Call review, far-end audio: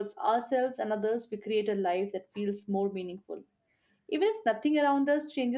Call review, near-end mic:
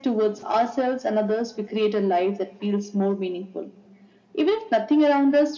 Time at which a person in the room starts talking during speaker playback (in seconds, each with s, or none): none